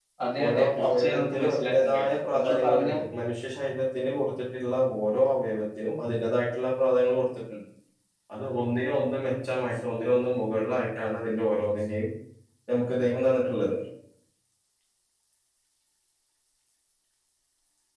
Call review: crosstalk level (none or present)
present